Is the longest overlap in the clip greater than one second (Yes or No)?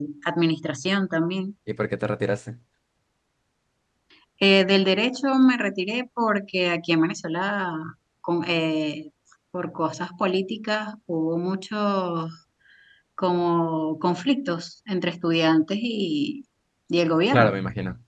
No